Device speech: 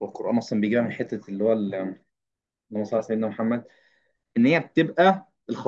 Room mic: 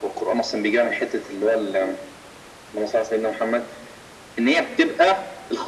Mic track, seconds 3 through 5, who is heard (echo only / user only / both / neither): echo only